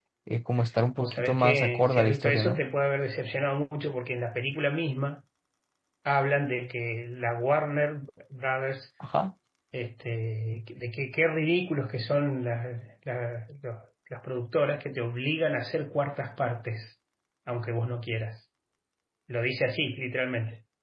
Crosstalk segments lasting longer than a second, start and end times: 1.0-2.6

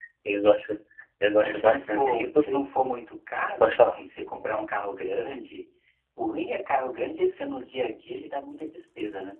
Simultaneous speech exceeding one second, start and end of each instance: 1.4-2.6

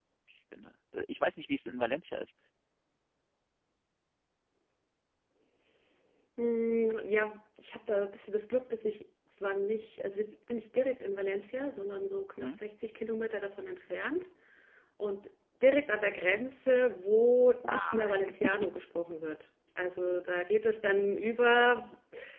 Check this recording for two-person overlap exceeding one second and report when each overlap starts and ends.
none

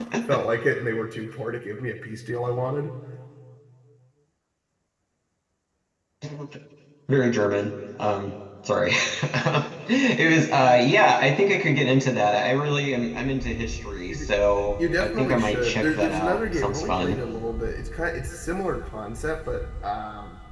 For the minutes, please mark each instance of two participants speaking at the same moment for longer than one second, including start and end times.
15.0-17.2

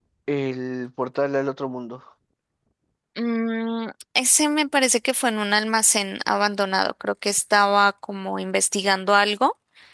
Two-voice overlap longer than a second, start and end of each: none

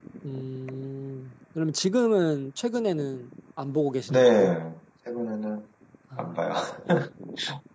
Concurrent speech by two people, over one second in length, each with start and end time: none

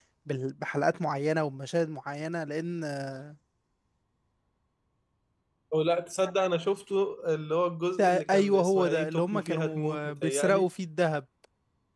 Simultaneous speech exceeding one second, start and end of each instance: 8.0-10.7

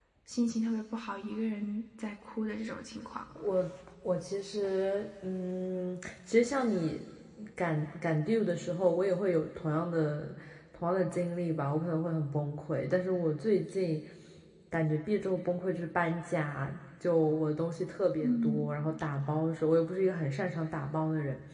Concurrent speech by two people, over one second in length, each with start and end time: none

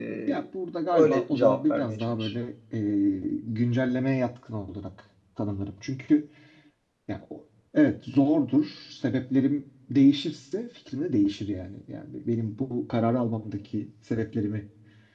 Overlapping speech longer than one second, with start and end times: 0.9-2.3

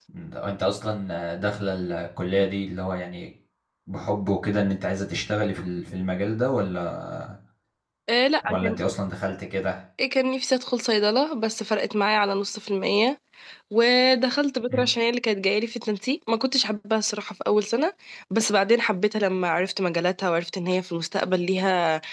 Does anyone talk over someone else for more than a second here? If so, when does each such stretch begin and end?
none

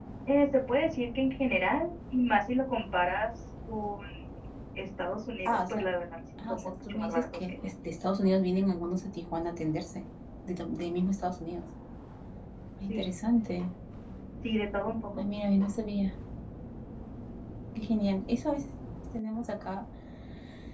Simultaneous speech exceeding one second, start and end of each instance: 6.5-7.7

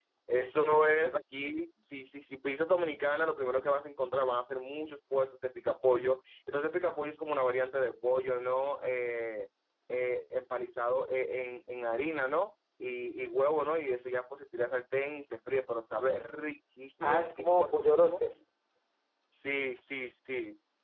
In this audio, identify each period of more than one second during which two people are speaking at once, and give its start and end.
17.0-18.2

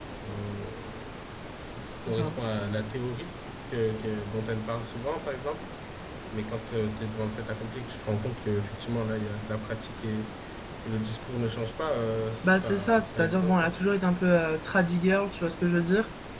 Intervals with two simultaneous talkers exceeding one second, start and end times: 12.4-13.8

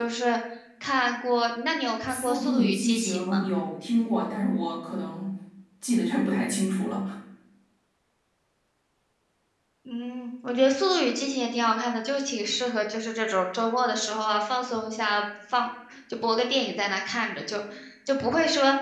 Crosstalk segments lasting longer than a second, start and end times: 2.1-3.5

